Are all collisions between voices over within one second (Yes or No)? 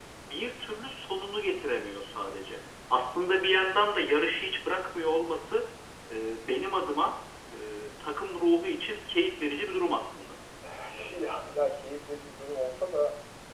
Yes